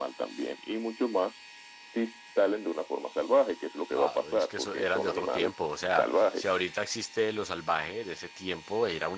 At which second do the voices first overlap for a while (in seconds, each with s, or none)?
4.0 s